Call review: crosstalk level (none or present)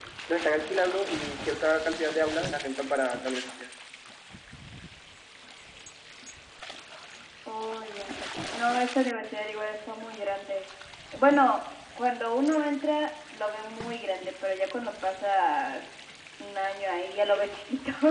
none